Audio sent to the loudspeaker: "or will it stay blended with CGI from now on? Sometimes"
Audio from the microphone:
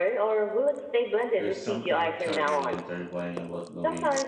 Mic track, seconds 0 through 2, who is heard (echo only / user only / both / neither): both